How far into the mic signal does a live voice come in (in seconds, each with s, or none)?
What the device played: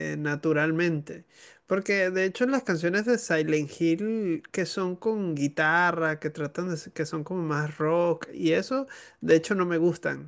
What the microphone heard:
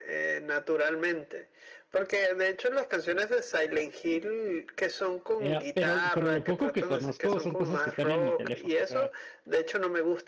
5.4 s